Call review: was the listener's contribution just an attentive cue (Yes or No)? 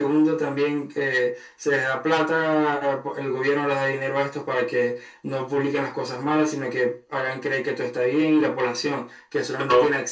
No